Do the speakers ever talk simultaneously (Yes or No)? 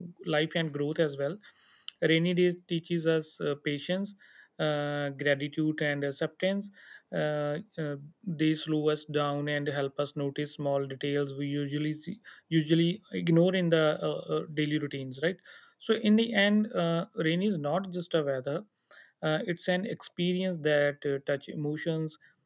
No